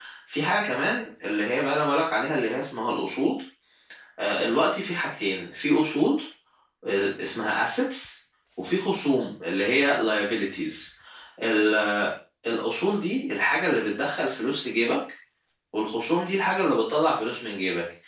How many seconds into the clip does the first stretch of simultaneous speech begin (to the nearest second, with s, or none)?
none